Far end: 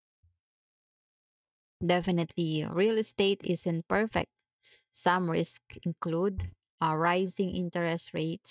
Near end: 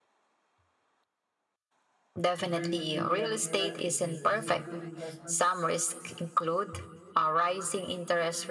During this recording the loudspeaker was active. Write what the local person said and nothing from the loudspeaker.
during the BBM era, is it, is it a good investment?

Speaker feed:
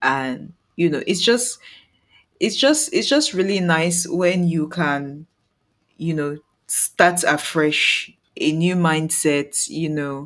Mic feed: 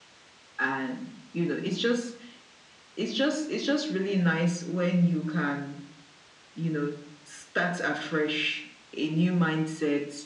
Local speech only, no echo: none

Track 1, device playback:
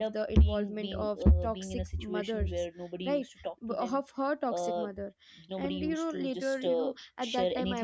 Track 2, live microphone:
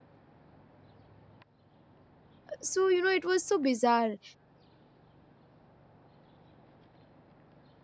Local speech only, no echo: so you know it was so bizarre

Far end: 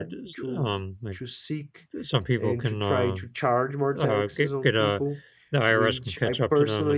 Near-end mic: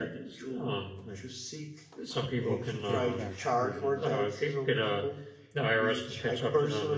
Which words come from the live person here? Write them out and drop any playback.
the books in paperback version.

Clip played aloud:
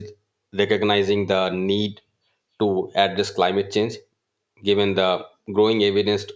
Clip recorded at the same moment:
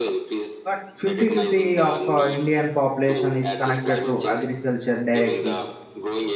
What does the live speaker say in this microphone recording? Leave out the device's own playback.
but fifty fifty of uh, Indian population is connected to agriculture directly

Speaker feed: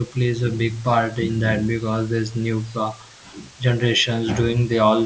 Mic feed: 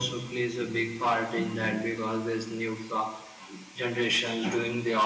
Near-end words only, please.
none

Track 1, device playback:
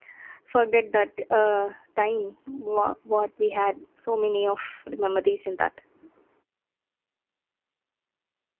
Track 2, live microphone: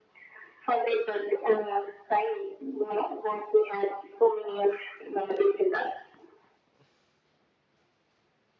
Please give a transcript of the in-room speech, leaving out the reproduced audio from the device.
none

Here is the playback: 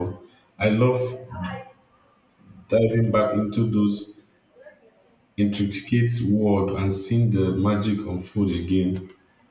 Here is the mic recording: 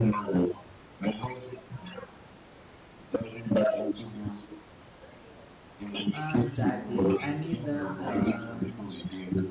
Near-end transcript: Uh, exactly. I need that. Um,

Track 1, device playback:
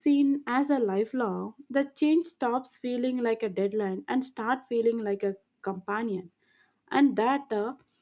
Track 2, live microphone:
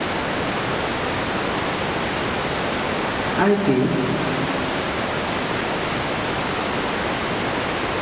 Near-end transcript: I feel

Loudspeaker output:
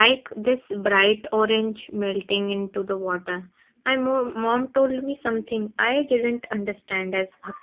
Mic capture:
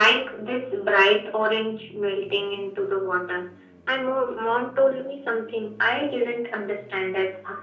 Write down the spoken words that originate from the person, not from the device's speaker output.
none

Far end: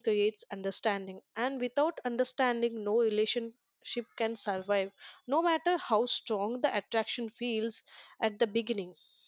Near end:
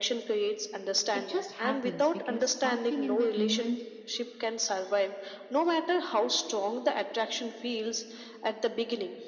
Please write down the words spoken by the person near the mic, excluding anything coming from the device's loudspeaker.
It just happens because something in that moment

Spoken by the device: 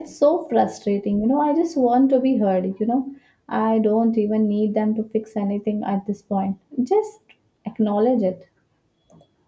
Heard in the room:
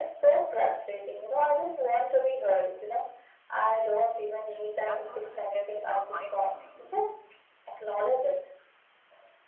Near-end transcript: hmm That must have been uh, eye opening.

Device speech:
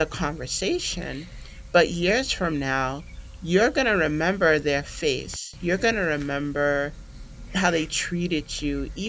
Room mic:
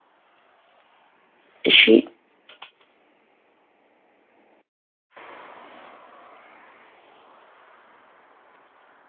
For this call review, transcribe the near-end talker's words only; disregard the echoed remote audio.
she

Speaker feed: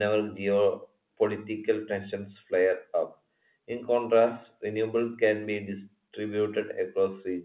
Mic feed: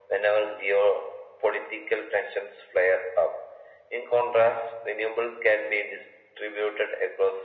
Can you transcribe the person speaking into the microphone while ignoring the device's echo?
none

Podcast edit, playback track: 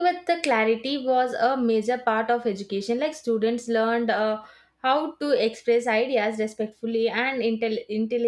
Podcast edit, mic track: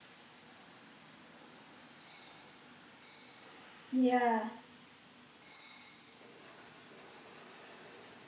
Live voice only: Yeah,

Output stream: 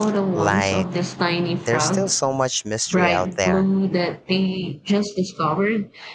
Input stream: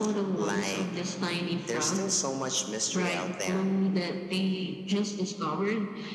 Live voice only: none

